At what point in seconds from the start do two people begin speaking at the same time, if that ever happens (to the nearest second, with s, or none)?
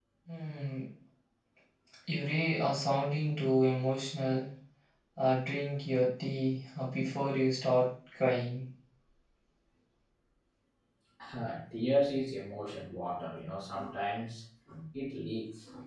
none